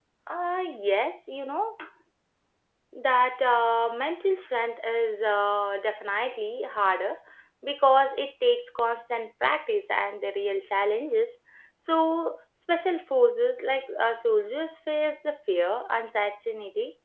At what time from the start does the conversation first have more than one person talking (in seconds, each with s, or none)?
none